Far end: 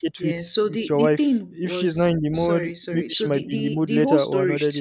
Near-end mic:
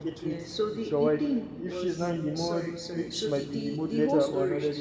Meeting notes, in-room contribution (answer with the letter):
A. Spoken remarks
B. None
B